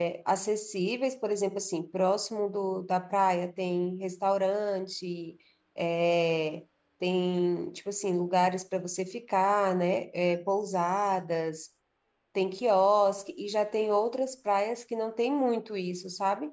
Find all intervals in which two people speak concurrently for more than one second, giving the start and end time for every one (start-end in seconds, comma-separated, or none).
none